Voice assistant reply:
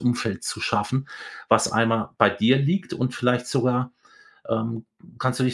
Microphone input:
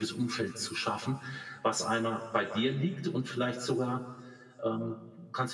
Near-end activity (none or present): none